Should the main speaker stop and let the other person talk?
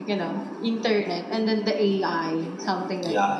Yes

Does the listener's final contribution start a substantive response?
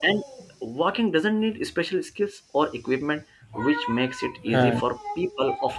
No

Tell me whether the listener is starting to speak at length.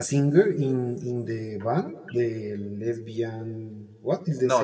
Yes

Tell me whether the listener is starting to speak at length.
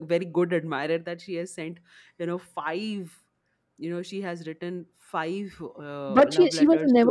Yes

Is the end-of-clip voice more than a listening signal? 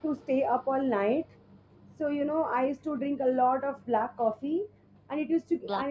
No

